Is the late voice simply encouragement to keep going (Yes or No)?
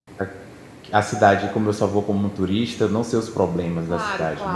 No